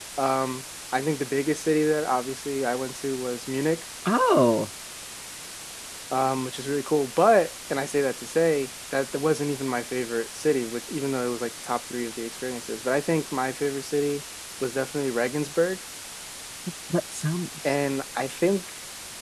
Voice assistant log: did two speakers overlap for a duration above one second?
No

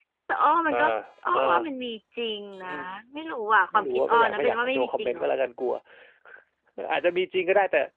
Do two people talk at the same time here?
Yes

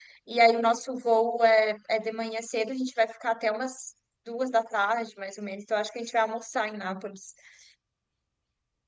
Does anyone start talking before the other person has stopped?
No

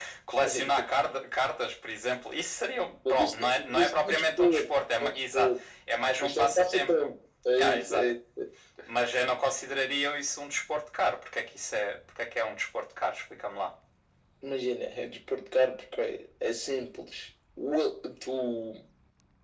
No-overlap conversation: No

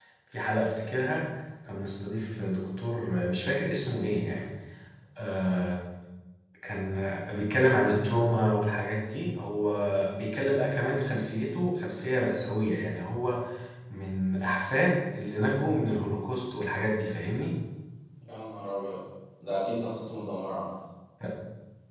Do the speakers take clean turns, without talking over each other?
Yes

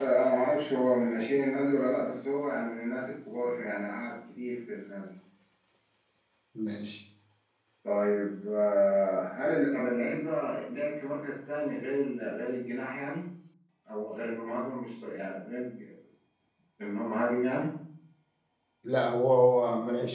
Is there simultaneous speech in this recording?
No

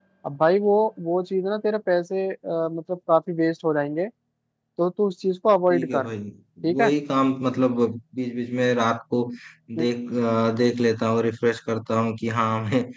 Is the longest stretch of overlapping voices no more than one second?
Yes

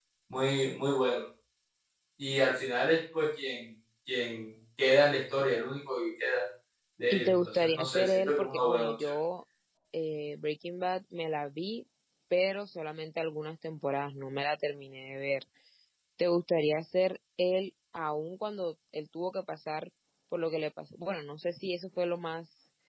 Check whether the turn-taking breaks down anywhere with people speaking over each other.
Yes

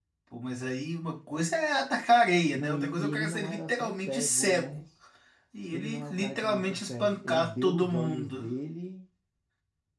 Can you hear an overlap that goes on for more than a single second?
Yes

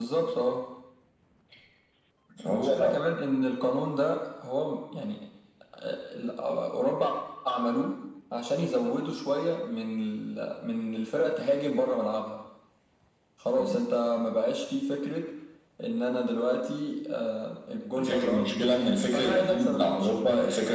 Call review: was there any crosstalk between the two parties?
Yes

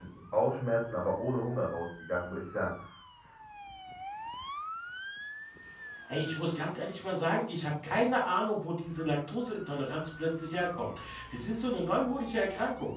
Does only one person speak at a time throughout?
Yes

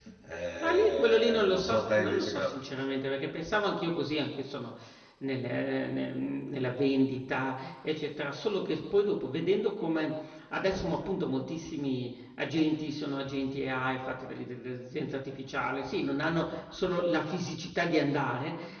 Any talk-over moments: Yes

